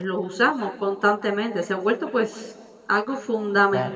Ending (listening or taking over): listening